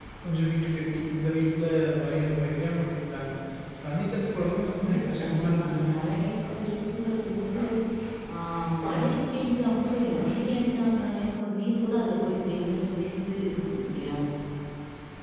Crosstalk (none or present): present